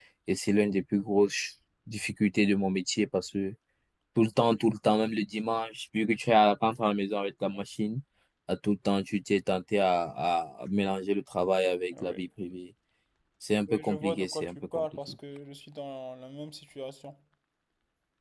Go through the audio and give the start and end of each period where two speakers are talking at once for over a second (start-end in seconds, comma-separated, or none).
13.7-15.1